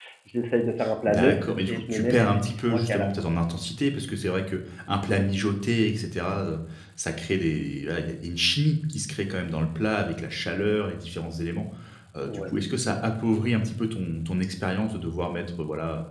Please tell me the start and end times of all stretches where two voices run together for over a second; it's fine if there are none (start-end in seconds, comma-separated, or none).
1.1-3.1